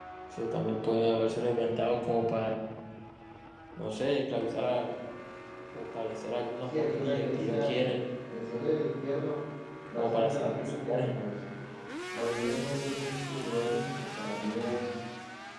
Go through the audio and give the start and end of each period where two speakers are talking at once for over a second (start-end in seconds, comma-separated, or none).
6.8-8.0, 10.0-11.3